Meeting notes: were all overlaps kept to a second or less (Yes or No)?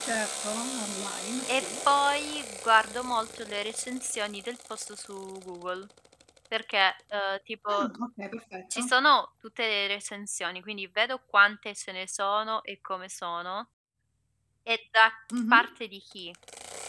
Yes